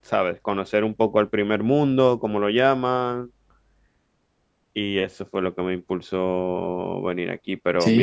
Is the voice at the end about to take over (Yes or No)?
Yes